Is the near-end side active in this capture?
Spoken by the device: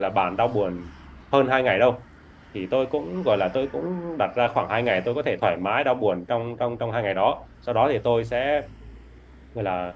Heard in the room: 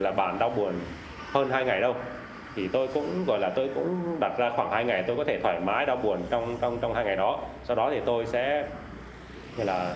No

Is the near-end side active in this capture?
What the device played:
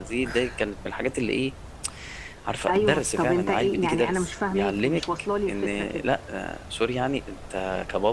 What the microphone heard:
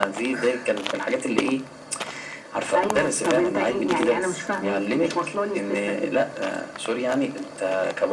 No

